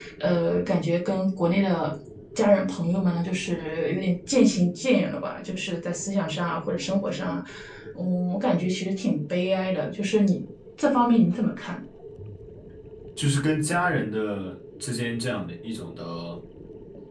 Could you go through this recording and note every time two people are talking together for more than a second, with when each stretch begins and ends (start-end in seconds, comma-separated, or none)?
none